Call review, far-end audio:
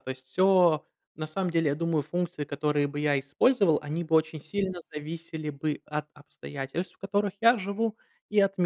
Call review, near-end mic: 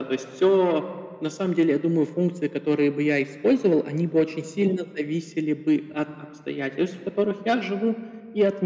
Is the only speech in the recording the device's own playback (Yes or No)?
Yes